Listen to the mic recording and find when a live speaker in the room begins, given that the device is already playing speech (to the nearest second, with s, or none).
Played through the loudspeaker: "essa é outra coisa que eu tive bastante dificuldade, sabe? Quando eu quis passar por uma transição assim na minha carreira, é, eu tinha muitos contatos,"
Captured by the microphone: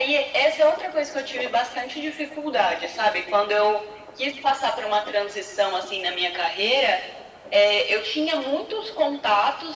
none